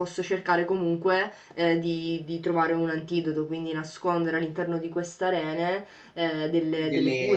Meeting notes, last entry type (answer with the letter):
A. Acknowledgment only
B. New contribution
B